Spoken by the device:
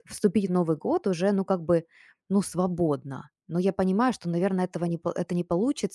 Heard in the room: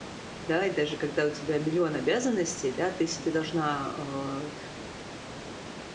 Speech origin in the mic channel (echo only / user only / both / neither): user only